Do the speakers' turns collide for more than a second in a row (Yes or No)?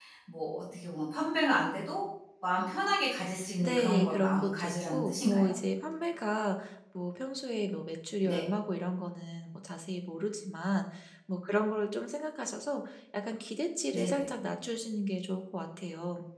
Yes